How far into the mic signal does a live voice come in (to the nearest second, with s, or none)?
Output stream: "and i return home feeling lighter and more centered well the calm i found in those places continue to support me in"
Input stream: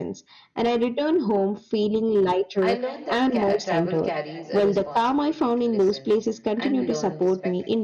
3 s